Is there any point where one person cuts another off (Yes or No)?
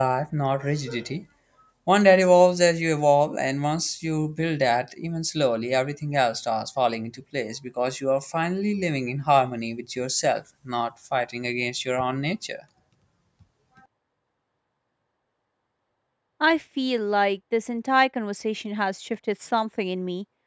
No